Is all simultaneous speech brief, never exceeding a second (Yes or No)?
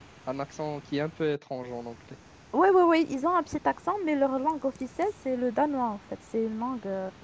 Yes